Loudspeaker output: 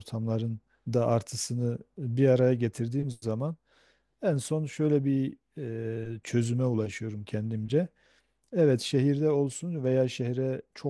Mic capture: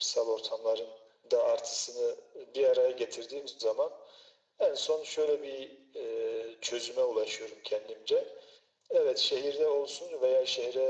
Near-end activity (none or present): none